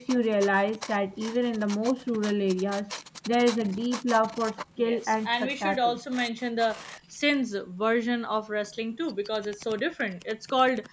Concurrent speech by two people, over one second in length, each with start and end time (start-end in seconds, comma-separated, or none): 4.8-6.0